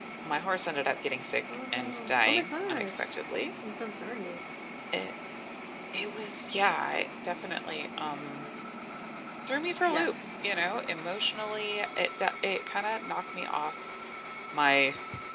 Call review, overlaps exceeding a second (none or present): present